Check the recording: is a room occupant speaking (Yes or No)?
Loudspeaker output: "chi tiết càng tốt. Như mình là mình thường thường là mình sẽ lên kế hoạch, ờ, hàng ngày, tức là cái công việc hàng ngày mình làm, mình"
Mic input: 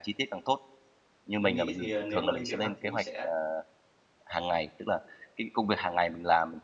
Yes